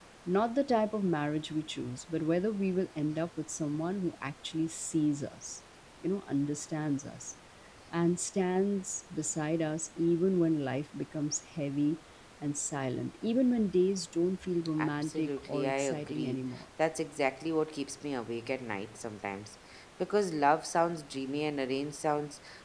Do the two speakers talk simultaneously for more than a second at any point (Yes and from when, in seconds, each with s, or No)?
Yes, from 14.8 s